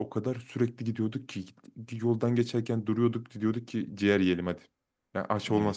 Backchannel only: Yes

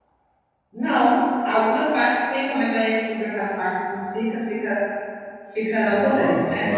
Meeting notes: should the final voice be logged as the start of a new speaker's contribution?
Yes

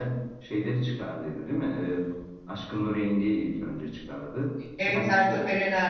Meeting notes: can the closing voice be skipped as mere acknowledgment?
No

